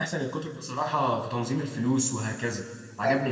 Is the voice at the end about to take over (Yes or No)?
Yes